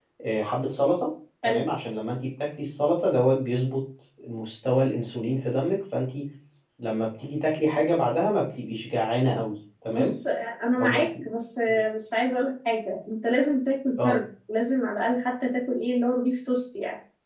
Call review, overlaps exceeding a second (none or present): none